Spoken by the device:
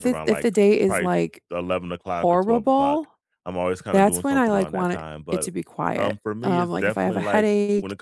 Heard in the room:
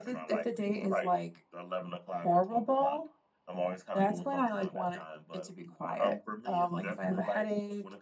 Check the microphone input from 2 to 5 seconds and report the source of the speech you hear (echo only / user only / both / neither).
echo only